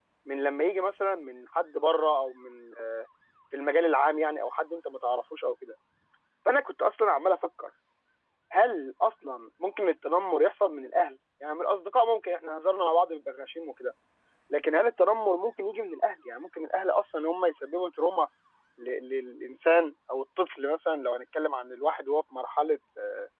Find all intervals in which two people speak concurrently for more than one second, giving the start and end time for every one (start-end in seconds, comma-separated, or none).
none